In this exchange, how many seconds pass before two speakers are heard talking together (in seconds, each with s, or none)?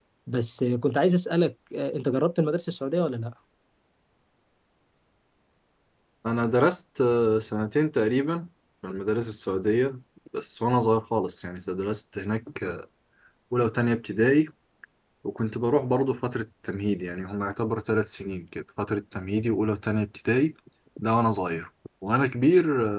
none